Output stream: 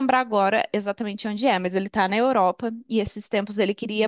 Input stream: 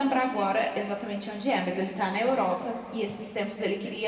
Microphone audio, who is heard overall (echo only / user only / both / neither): echo only